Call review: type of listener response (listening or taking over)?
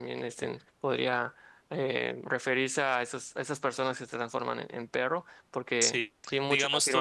taking over